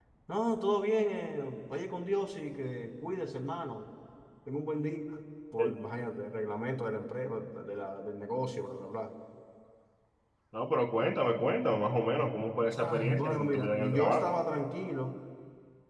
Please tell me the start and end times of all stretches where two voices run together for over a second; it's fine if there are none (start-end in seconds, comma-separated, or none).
12.8-14.3